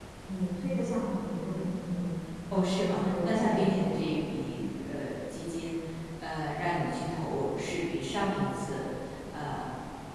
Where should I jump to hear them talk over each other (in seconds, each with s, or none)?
2.5 s